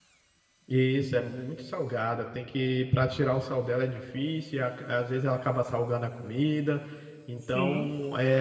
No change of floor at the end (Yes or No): Yes